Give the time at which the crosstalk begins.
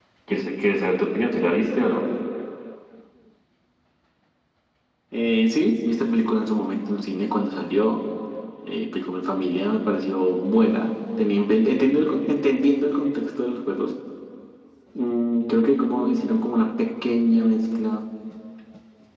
none

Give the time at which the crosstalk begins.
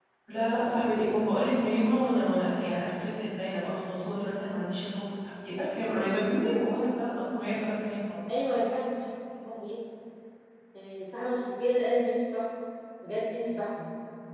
none

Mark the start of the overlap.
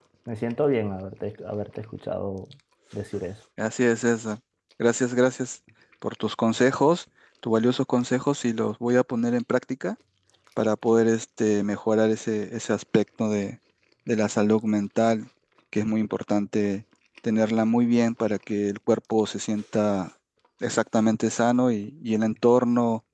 none

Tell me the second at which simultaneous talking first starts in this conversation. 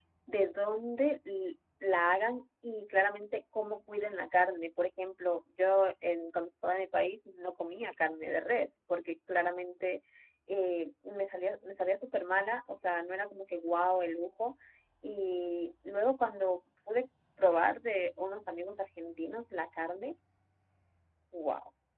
none

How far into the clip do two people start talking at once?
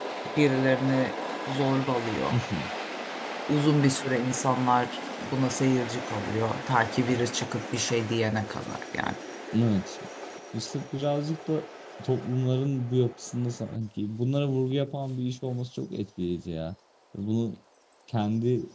none

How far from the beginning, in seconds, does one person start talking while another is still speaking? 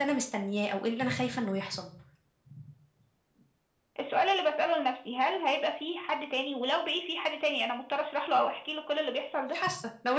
none

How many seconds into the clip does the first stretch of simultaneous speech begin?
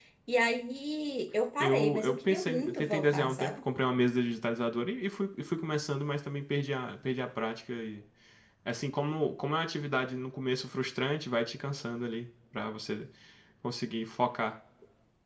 1.6 s

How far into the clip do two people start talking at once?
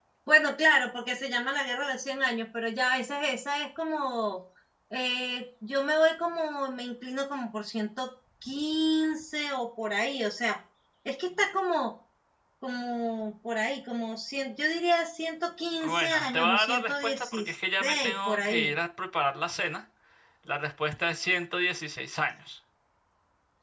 15.8 s

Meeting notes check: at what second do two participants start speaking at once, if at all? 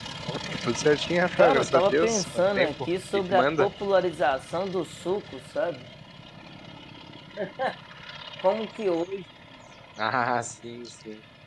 1.4 s

